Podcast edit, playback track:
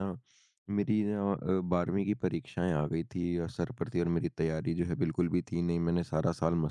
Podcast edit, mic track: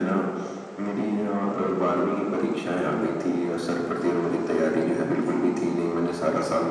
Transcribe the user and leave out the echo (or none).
none